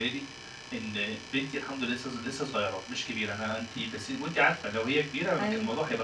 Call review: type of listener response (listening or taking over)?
listening